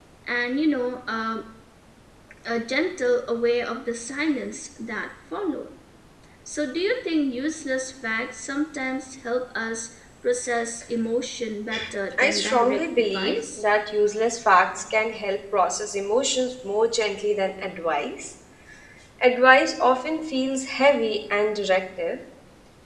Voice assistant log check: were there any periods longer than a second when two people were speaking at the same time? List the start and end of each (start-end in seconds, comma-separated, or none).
12.2-13.6